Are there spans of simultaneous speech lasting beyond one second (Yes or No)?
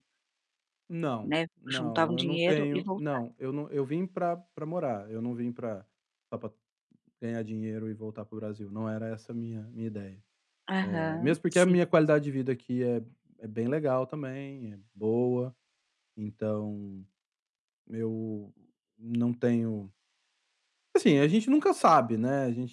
Yes